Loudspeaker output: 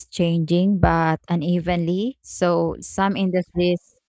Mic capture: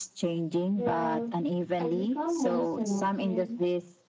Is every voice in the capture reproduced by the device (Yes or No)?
No